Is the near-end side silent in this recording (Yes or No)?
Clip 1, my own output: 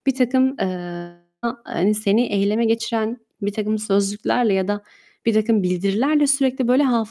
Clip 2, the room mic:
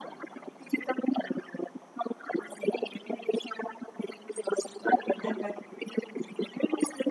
No